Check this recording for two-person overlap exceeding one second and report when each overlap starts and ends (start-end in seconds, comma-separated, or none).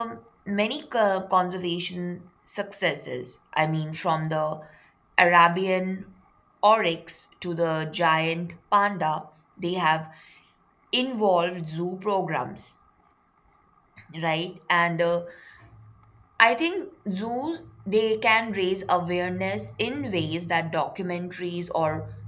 none